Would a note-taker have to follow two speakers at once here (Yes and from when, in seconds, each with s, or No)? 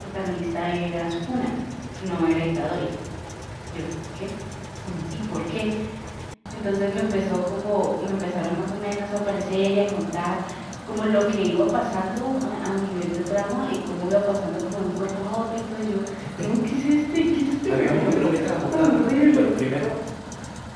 Yes, from 17.7 s